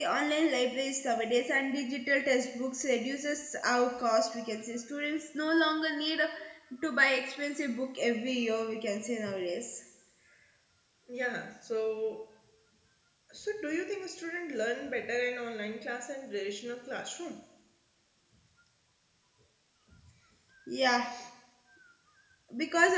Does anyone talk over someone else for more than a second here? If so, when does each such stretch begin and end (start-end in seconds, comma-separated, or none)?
none